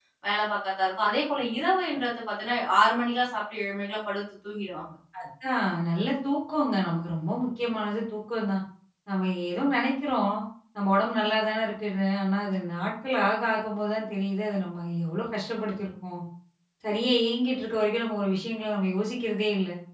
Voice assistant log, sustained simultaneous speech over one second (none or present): none